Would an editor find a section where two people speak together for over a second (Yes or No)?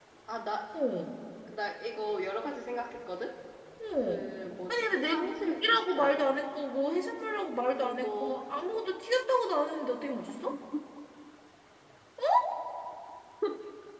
Yes